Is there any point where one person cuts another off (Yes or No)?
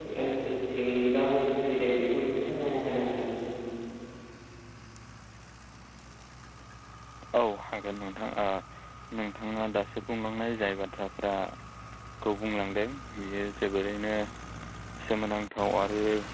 No